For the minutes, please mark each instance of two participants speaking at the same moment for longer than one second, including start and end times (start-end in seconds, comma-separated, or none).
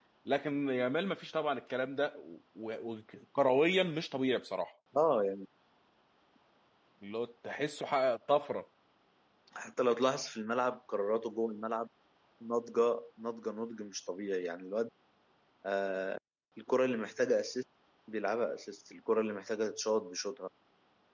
none